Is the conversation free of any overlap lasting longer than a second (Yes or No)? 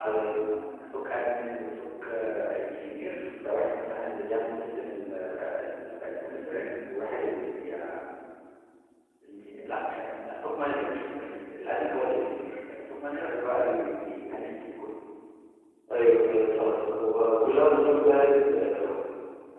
Yes